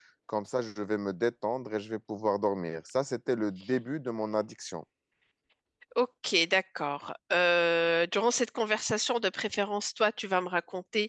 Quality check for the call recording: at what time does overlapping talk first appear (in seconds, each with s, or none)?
none